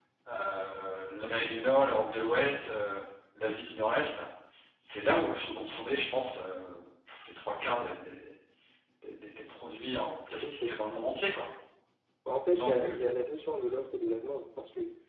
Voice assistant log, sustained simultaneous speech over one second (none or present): none